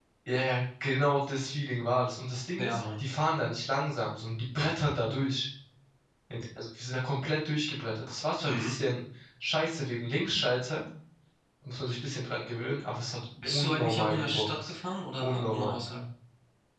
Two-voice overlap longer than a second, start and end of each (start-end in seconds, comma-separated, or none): 13.5-14.7